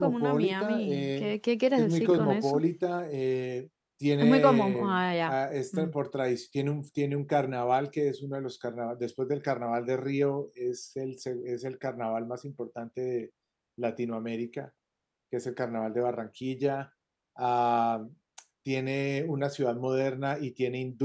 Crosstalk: present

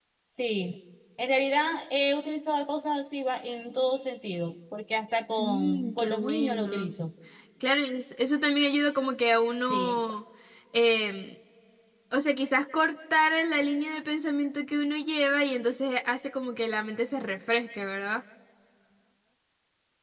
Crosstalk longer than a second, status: present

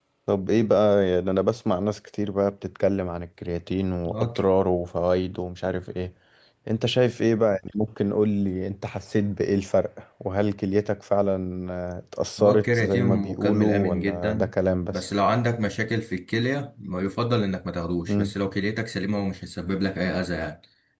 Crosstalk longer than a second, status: present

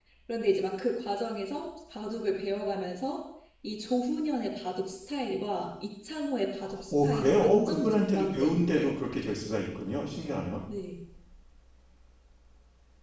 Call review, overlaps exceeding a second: present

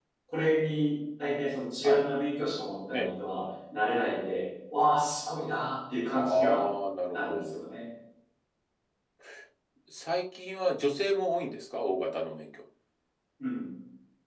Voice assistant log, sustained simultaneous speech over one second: none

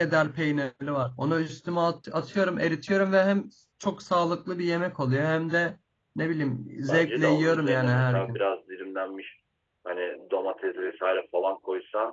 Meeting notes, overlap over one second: present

